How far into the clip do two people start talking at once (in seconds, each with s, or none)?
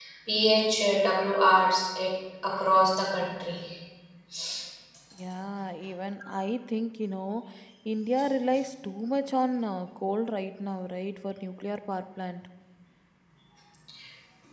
none